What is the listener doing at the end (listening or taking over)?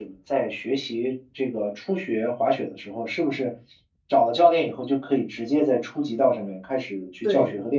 taking over